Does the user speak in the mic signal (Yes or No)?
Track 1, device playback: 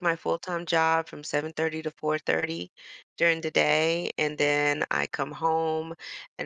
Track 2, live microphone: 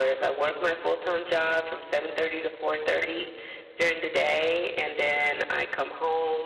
No